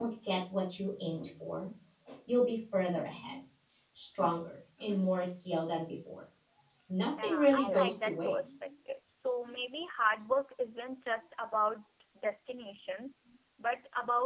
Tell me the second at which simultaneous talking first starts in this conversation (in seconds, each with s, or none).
7.2 s